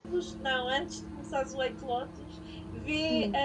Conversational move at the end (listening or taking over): listening